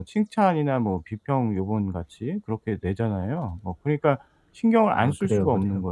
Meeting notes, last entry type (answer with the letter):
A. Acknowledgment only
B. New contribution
B